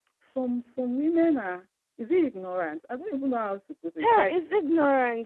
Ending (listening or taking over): taking over